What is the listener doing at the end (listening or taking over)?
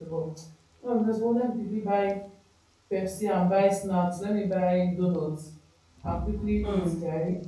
listening